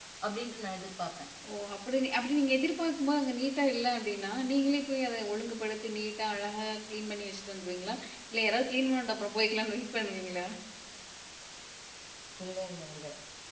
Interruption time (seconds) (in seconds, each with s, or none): none